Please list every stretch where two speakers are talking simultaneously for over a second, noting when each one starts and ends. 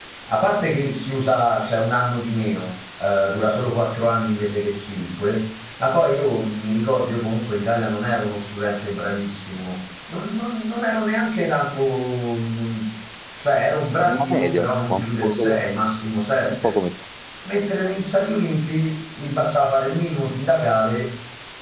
14.1-15.6

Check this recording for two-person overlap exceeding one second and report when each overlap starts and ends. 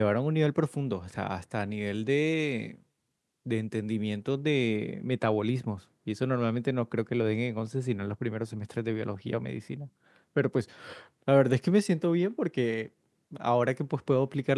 none

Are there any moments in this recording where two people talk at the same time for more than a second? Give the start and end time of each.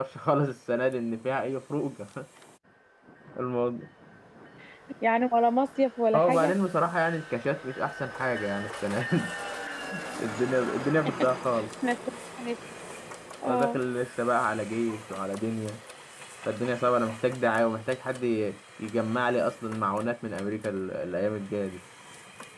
none

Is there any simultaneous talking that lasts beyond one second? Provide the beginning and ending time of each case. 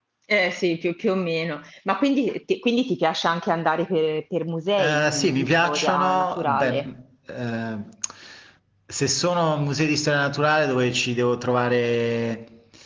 4.8-6.8

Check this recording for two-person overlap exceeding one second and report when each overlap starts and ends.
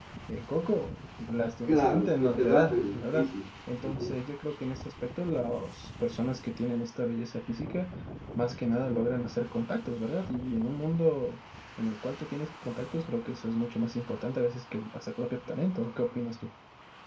1.7-3.3

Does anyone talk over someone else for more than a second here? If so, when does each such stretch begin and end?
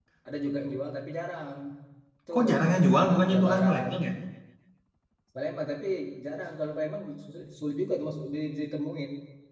2.3-3.9

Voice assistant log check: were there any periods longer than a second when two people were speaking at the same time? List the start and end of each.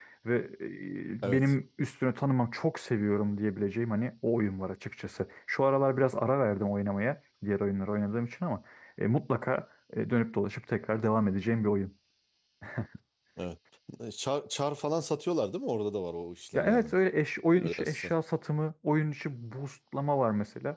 none

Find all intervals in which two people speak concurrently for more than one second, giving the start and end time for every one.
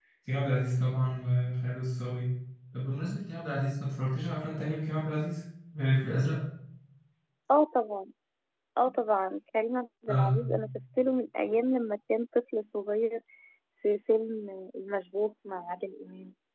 none

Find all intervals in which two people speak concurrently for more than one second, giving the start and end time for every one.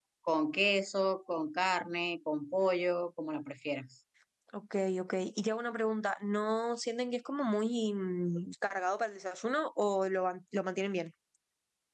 none

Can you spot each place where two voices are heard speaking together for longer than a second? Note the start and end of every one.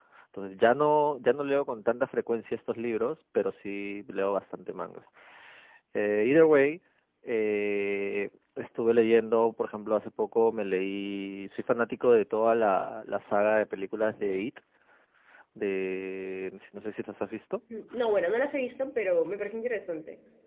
none

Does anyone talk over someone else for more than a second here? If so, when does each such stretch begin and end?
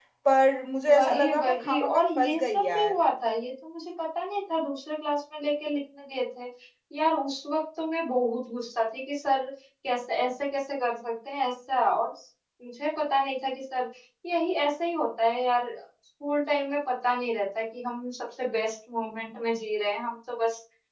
0.9-2.9

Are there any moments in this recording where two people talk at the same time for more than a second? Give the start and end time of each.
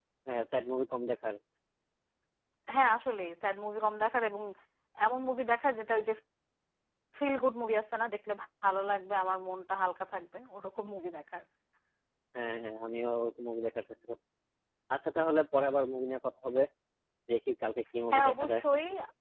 none

